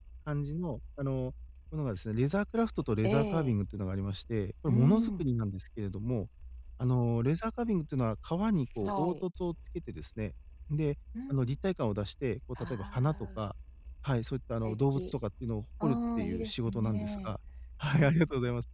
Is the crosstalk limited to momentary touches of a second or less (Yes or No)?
No